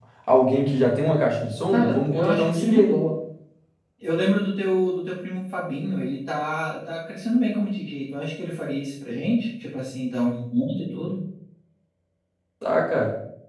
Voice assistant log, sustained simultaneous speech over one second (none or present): present